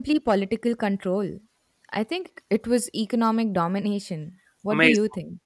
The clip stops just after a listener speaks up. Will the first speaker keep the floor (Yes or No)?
No